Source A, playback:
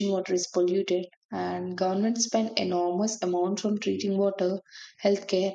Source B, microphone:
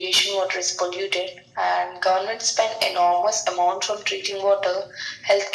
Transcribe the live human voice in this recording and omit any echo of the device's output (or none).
none